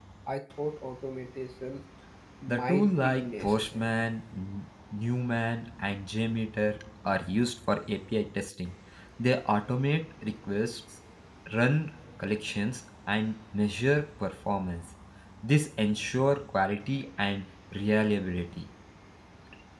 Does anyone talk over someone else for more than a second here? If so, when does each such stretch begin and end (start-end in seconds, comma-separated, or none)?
2.5-3.9